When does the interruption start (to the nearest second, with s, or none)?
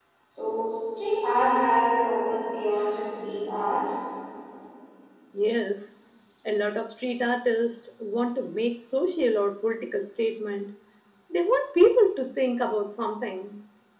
none